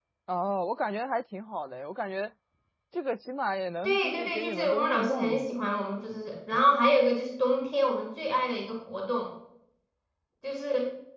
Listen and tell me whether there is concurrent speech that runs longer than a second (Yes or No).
Yes